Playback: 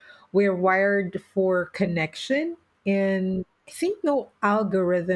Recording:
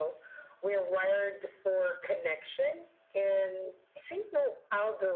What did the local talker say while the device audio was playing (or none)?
none